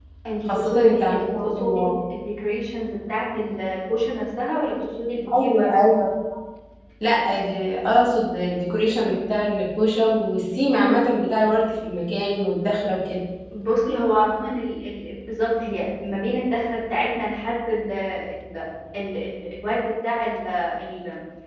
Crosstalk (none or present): present